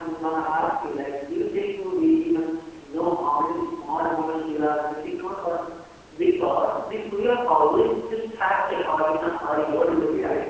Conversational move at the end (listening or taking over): taking over